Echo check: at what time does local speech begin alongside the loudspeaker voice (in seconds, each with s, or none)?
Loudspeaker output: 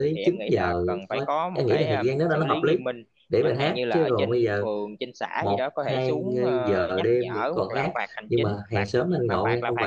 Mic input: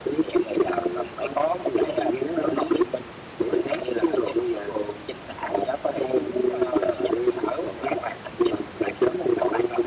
none